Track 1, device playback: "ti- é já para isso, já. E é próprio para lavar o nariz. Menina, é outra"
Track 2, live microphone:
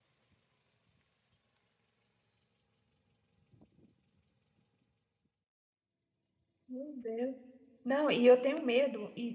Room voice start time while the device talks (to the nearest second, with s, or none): 7 s